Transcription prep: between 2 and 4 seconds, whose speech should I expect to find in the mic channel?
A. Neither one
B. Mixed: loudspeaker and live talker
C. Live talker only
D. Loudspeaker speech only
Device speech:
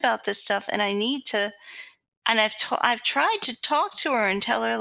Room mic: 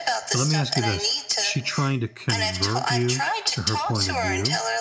B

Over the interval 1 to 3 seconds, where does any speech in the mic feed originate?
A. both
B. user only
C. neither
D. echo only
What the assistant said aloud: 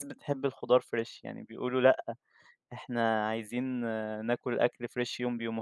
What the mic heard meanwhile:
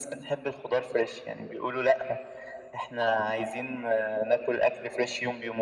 D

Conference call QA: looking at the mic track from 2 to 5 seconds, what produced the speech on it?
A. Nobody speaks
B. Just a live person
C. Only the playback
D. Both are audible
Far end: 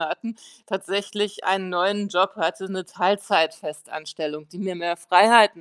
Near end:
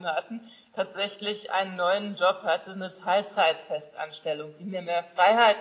C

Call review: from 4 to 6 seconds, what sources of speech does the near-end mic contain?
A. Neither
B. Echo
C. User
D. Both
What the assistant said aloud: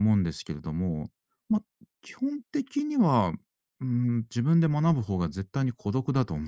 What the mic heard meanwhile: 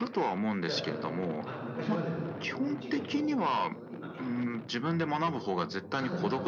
D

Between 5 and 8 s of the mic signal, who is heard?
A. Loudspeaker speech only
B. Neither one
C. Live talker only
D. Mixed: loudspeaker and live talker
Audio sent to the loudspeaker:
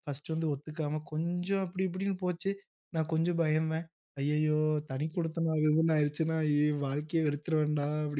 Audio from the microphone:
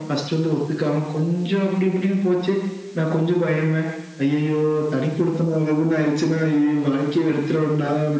A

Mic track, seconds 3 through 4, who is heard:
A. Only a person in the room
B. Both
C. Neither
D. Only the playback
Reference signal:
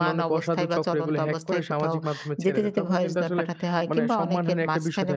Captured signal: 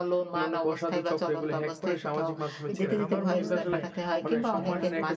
B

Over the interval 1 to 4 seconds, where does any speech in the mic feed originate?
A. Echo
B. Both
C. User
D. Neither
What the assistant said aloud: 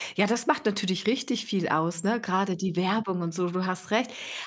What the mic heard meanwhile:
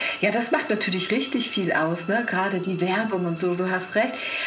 A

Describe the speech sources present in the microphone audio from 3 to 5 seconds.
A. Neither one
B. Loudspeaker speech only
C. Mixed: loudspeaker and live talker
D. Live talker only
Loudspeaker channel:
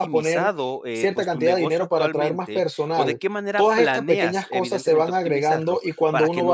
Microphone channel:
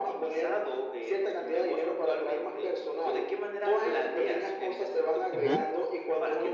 B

